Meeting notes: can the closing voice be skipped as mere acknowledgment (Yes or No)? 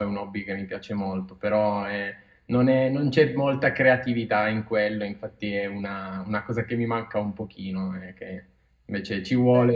Yes